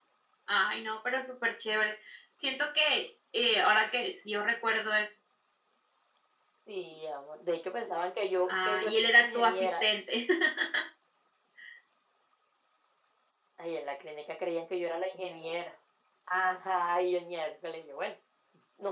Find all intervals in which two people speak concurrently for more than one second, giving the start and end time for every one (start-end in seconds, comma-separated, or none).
8.5-9.9